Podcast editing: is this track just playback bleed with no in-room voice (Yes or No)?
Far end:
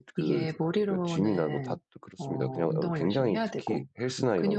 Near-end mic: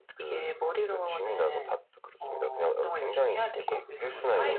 No